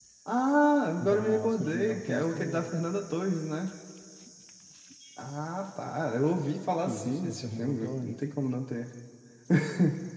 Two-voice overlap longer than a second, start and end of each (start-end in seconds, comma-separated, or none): 1.0-2.7, 6.8-8.2